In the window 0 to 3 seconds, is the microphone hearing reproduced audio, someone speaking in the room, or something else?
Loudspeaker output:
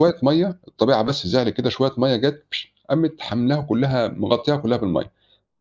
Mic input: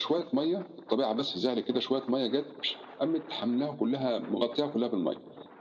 echo only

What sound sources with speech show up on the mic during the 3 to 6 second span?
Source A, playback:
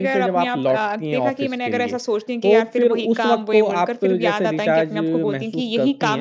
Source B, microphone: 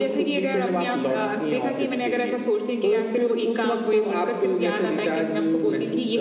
echo only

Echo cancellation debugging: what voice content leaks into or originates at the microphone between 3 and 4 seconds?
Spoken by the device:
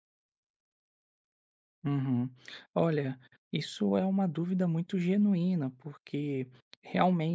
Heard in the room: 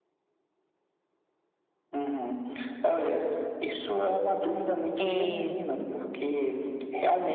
echo only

